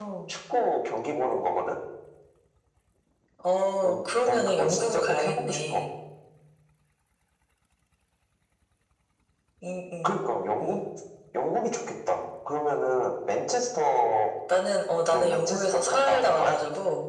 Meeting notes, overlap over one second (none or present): present